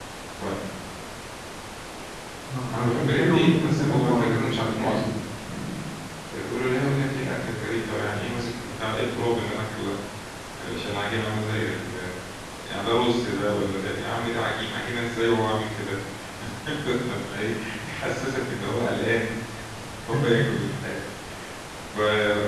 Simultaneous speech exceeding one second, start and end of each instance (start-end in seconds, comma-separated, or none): 2.7-5.0